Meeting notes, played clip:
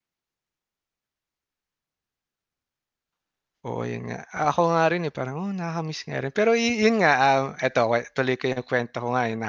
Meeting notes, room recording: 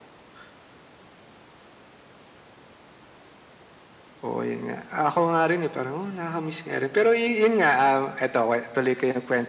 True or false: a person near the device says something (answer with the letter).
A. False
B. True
A